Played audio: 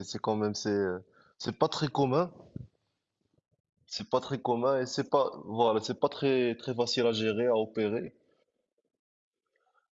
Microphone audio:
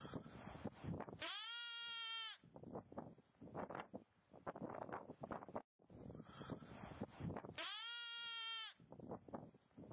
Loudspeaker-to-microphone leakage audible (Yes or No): No